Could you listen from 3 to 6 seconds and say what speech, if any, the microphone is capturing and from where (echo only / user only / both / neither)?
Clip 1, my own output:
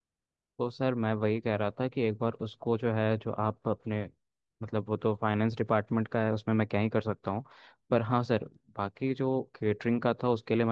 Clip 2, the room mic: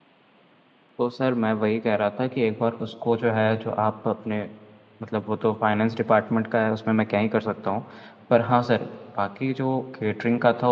echo only